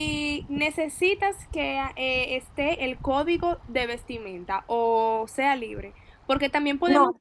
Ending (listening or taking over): listening